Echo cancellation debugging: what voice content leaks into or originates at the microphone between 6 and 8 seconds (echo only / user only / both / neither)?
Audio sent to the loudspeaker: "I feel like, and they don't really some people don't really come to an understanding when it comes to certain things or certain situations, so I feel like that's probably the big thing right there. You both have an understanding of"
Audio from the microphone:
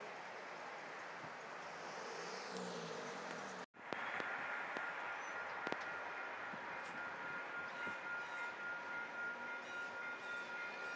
neither